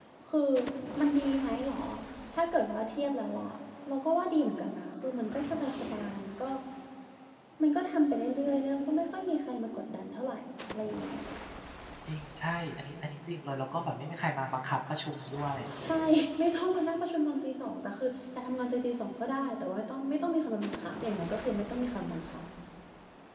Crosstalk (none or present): none